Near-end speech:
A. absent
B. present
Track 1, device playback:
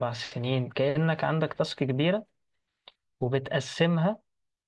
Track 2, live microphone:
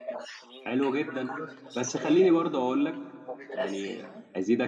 B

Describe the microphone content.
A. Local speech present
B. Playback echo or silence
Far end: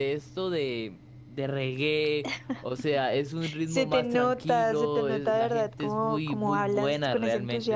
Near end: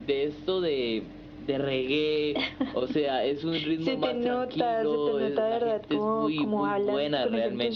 B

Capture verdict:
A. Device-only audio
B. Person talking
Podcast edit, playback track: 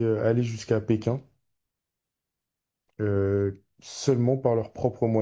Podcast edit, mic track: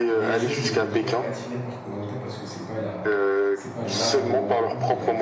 B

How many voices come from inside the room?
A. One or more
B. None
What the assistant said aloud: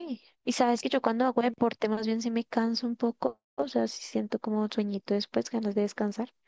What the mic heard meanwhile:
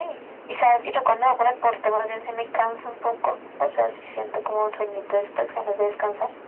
B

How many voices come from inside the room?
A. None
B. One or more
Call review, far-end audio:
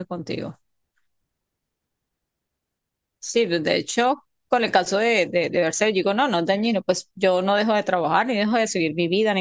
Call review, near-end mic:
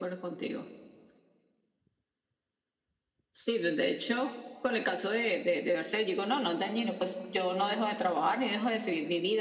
A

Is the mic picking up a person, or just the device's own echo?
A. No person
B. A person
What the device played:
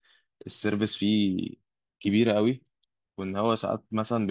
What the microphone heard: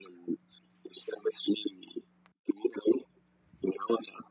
A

